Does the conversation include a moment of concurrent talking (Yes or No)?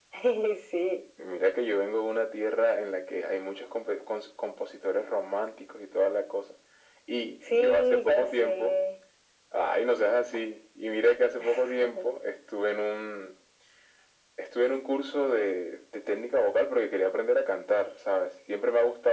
Yes